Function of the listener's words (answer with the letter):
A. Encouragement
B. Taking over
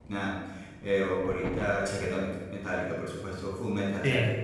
A